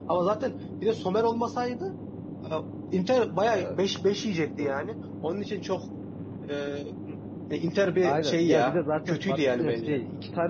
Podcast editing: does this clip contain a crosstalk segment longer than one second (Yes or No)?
Yes